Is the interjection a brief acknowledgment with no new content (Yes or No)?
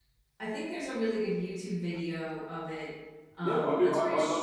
No